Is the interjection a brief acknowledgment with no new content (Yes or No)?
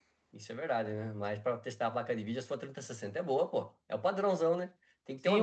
No